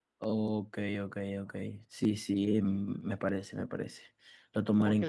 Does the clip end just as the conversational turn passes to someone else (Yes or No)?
Yes